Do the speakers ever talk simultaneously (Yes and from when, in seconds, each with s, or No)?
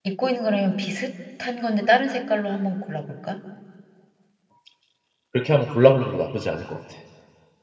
No